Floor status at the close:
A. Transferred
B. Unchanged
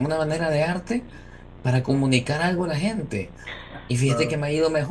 B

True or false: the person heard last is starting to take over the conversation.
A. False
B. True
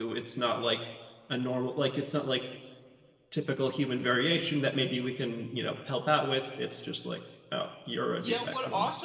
B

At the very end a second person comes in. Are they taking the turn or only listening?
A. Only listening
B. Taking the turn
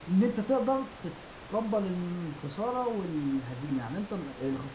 A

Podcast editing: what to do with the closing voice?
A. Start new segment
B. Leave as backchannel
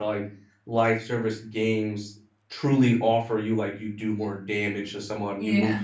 B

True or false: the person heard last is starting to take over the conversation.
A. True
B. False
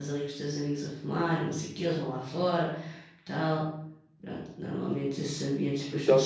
A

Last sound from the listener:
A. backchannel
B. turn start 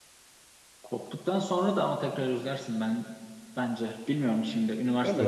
B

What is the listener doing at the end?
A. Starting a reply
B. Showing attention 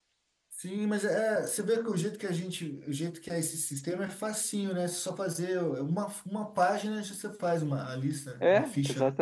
A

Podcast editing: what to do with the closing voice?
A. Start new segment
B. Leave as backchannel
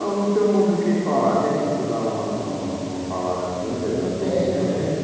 A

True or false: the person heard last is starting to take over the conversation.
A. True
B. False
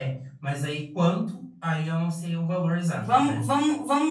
A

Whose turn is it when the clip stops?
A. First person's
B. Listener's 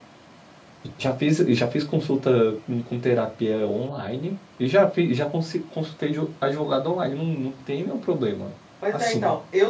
B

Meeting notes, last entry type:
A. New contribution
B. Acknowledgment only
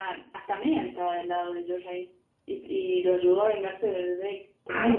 A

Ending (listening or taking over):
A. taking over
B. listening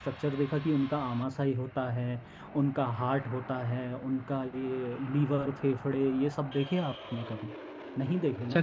A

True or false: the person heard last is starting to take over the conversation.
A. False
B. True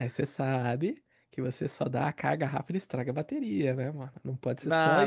B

